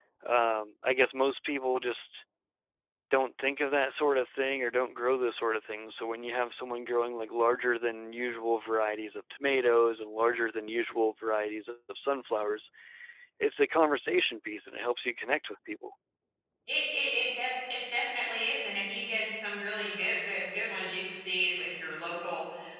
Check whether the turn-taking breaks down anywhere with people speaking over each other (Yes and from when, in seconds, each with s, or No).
No